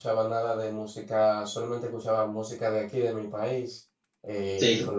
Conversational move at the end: listening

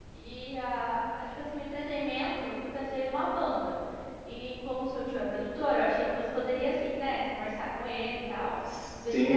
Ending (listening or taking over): taking over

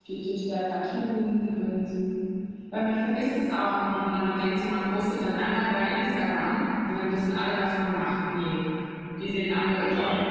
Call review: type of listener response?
listening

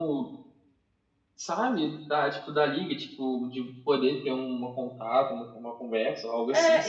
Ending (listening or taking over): taking over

